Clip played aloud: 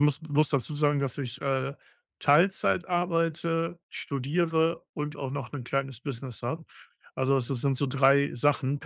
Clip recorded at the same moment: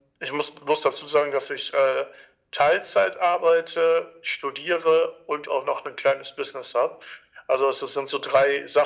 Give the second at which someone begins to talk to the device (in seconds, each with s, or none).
none